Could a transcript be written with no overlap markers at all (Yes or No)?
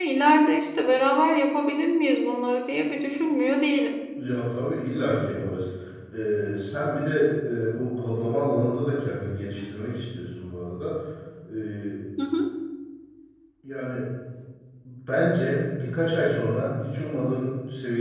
Yes